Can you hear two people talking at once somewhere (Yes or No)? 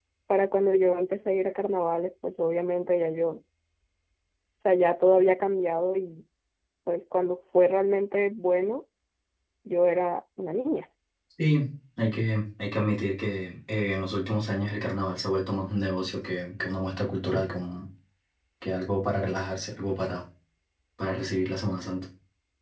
No